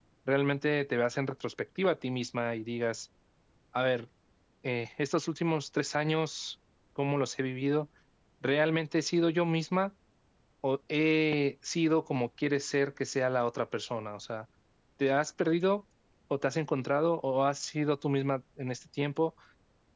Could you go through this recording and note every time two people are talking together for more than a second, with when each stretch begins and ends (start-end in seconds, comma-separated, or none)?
none